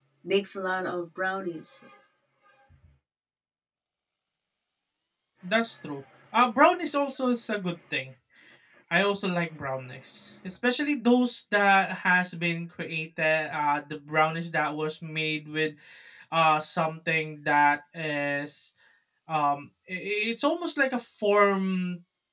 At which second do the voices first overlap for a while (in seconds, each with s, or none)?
none